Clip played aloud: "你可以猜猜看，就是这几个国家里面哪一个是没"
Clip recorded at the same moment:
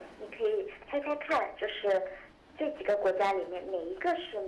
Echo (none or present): present